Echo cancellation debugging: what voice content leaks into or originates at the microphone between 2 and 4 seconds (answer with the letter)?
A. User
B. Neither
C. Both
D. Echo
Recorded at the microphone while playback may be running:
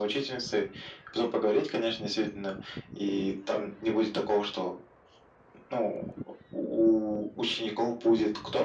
D